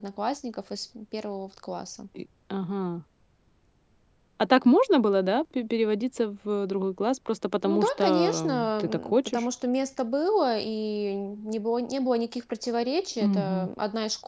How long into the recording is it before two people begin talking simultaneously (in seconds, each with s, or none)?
7.7 s